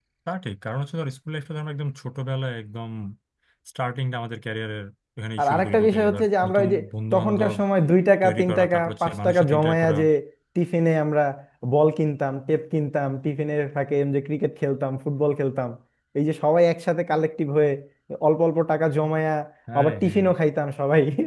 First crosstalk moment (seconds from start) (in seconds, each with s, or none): 5.4 s